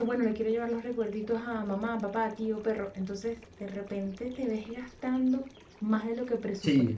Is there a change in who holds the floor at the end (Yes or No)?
No